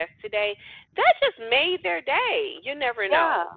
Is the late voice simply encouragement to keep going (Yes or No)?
No